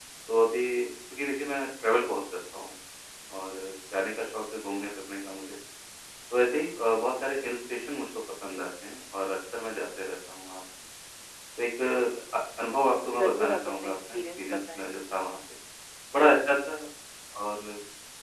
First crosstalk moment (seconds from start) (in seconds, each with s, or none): 13.0 s